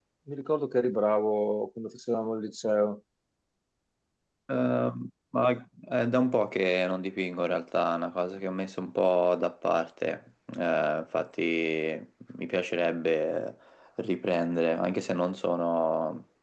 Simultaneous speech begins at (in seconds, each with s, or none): none